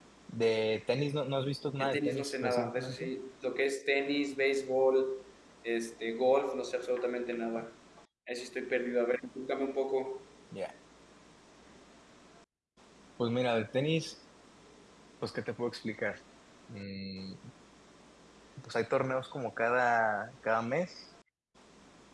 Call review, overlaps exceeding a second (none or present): present